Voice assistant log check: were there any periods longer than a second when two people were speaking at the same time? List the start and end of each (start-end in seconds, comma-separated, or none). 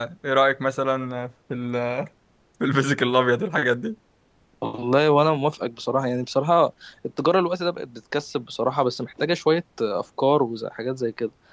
none